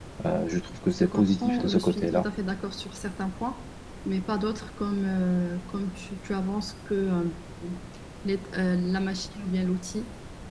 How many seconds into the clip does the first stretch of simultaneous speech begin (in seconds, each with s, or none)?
0.9 s